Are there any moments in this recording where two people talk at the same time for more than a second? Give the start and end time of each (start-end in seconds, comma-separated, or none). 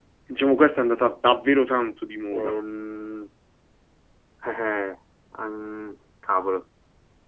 none